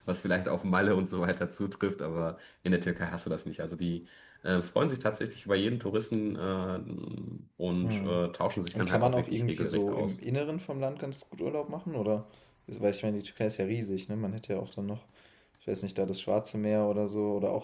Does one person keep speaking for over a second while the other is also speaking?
Yes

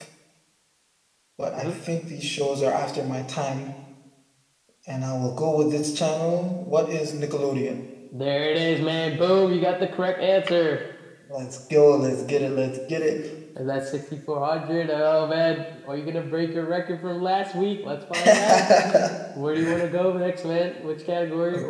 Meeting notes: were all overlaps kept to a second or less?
Yes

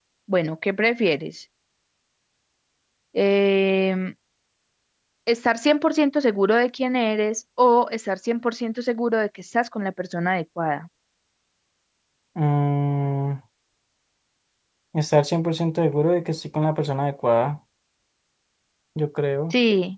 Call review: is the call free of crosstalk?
Yes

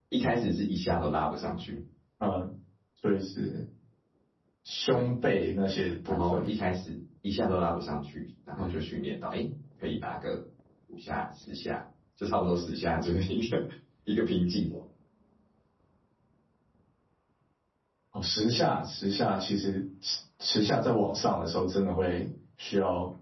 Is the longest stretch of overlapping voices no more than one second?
Yes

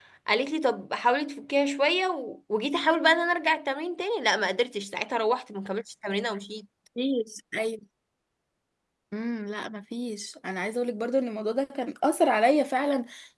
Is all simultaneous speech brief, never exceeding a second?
Yes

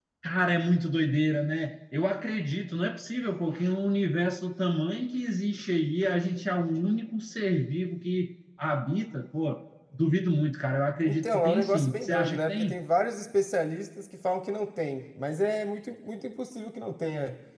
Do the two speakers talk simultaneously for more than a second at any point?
Yes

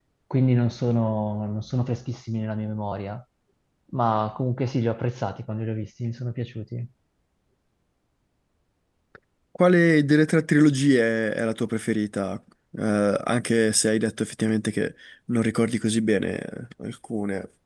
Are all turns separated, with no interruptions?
Yes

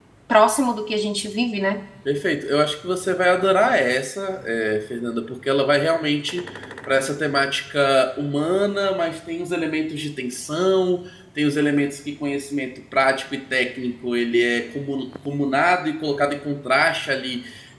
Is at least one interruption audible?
No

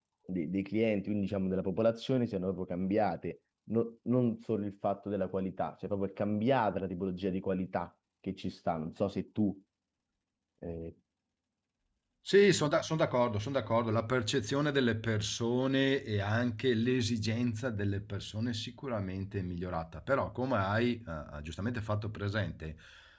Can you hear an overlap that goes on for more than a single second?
No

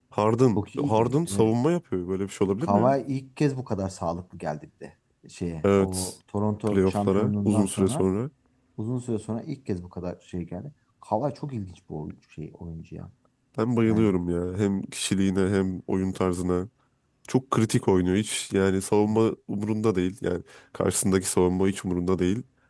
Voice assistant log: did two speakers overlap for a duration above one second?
Yes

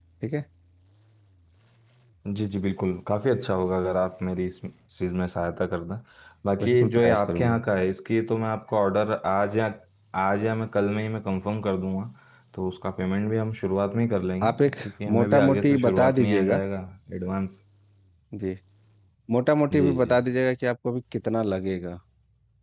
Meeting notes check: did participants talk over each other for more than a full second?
Yes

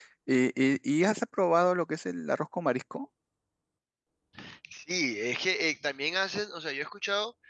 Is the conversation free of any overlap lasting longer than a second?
Yes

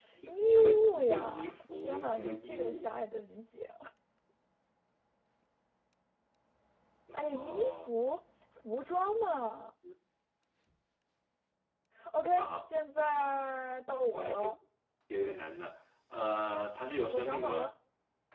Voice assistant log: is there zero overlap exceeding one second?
No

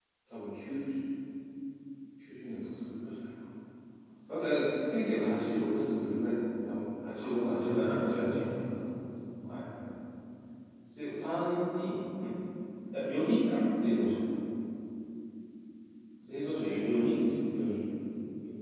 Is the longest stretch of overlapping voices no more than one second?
No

